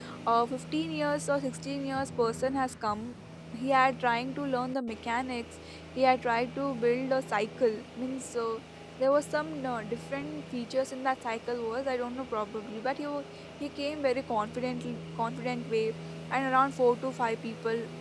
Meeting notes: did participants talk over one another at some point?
No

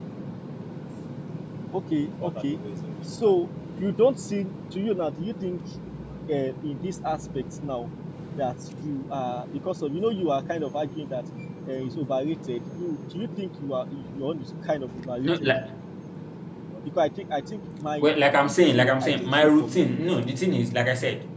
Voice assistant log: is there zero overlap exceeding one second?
No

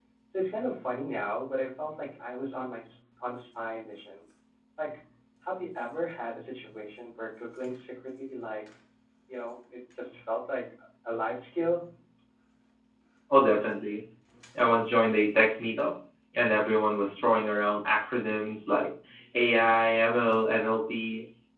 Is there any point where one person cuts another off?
No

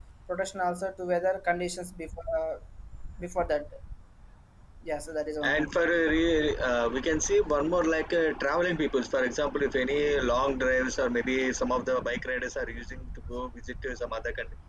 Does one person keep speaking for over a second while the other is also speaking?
No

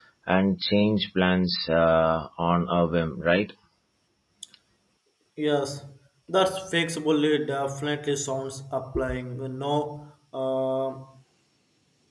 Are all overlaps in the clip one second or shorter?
Yes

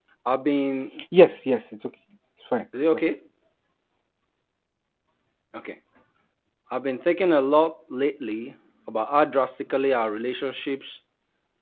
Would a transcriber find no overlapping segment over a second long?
Yes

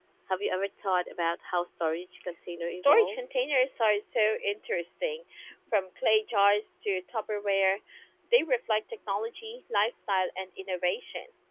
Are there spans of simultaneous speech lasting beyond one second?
No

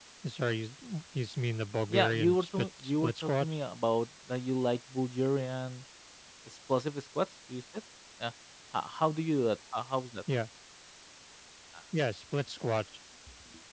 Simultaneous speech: Yes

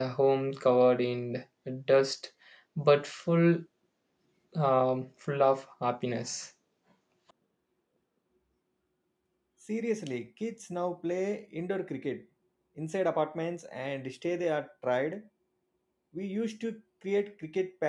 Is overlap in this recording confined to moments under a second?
Yes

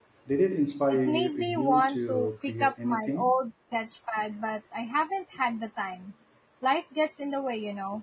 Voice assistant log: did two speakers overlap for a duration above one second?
Yes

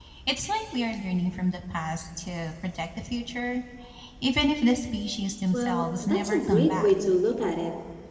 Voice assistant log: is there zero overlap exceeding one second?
No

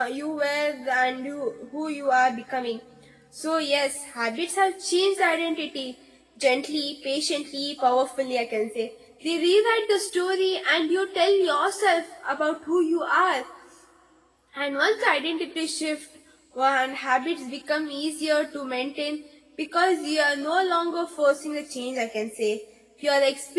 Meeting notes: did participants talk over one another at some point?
No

